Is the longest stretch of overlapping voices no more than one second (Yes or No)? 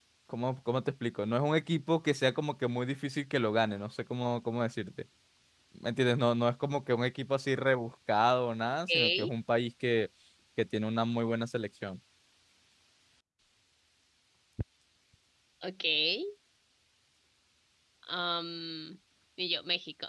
Yes